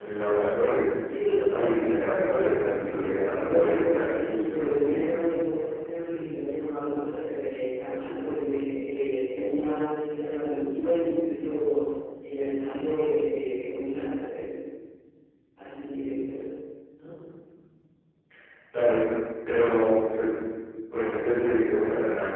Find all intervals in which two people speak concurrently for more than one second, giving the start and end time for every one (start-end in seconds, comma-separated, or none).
2.4-5.1